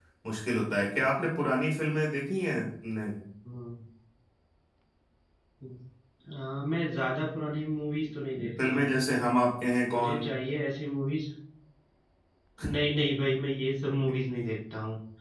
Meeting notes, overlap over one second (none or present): none